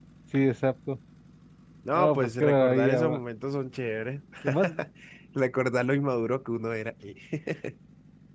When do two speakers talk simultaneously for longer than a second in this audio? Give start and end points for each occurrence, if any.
1.9-3.2

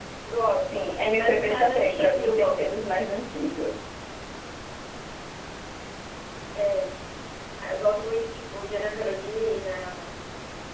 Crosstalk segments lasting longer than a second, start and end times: 0.7-2.9

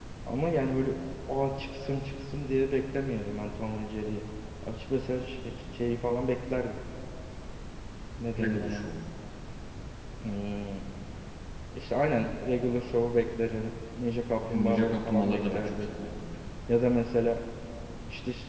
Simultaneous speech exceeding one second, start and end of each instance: 14.4-15.9

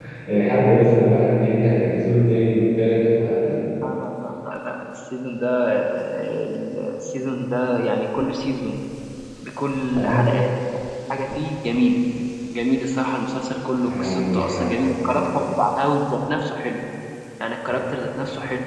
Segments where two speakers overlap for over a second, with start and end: 13.8-15.2

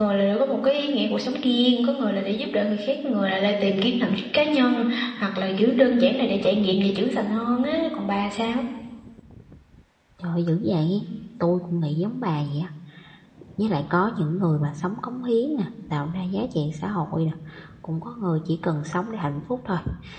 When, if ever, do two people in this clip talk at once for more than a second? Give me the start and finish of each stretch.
none

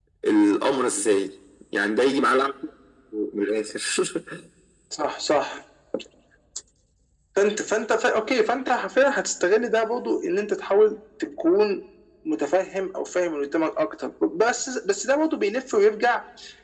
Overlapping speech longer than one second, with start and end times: none

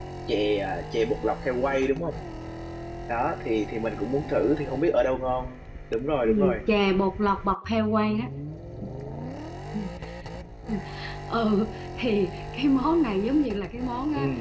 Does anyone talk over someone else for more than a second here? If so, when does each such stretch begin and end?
none

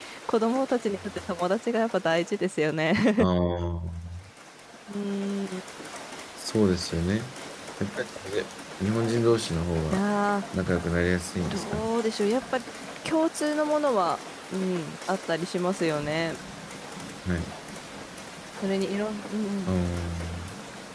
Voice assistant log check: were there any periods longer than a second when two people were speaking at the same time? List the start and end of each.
none

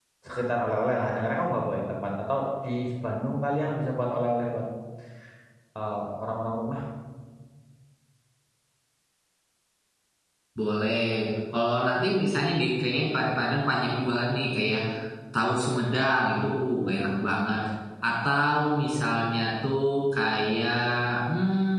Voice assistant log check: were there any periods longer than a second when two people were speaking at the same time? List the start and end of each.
none

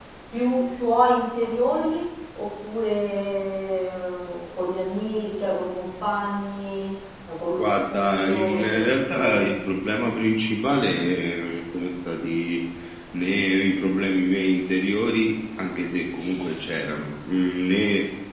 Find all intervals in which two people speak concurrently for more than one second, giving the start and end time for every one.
7.6-9.6

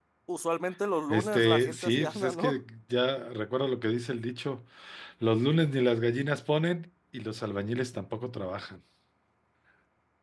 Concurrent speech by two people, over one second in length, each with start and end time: 1.1-2.6

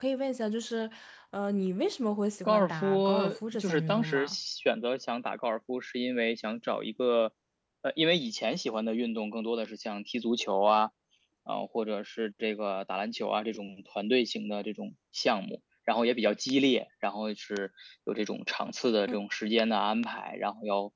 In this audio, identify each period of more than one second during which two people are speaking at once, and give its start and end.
2.4-4.4

